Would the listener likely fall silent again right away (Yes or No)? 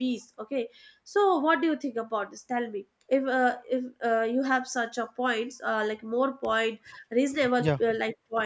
Yes